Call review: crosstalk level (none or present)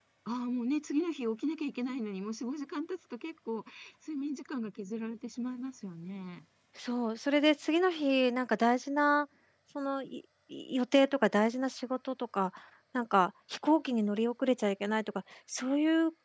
none